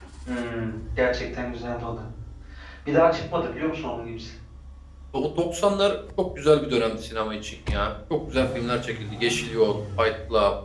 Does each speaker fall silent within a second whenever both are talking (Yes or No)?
Yes